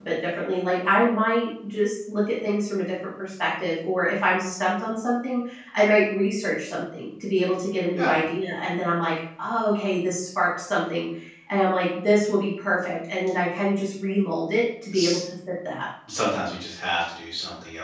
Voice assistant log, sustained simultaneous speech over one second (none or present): none